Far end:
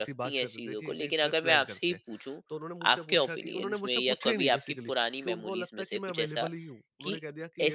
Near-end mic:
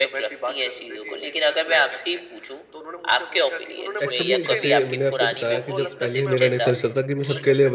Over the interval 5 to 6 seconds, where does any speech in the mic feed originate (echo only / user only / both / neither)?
both